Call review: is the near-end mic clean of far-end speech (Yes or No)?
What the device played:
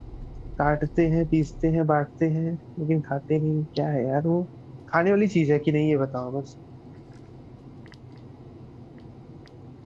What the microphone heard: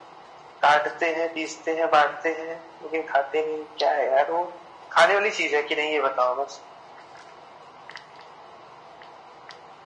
No